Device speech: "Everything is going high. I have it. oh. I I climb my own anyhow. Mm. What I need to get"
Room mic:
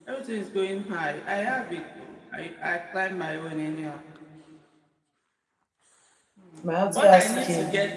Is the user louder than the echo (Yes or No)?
Yes